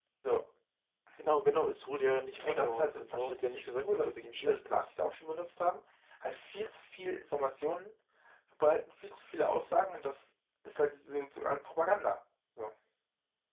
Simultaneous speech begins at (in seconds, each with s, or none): 2.4 s